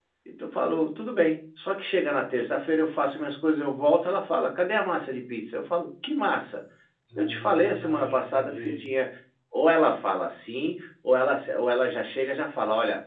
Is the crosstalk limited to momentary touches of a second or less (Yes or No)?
No